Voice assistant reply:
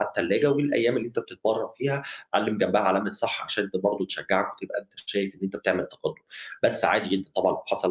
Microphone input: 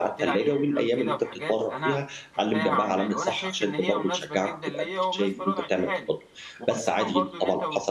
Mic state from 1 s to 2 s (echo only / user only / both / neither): both